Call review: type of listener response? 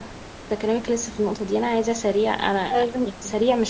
listening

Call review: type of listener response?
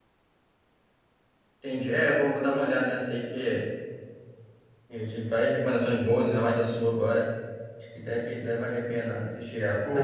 listening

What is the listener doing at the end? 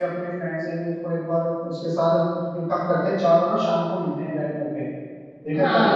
taking over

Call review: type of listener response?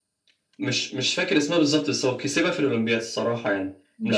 taking over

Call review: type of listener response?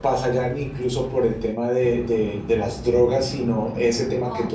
listening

